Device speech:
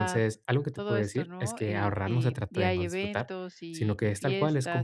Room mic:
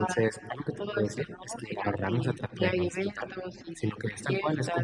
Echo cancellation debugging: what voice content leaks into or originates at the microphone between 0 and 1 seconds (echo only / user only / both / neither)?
echo only